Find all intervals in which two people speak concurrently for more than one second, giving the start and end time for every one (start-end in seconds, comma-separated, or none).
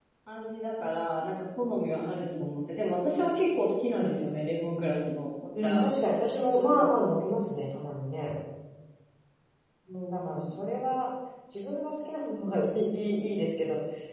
none